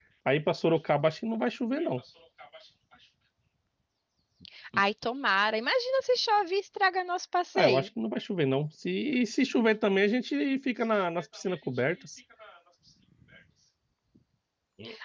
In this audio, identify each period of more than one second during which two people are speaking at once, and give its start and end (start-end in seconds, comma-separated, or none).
none